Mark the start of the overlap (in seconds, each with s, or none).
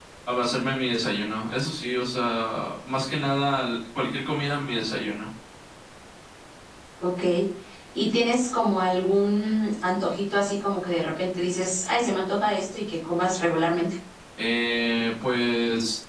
none